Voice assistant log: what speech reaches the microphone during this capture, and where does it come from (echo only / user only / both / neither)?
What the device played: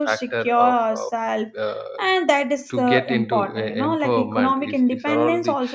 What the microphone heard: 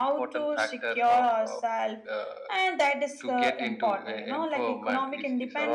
echo only